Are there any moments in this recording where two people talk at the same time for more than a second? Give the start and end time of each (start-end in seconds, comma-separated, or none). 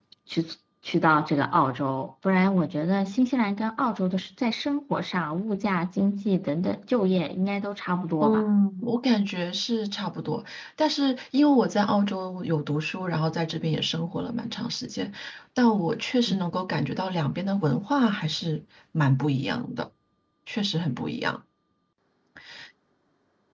none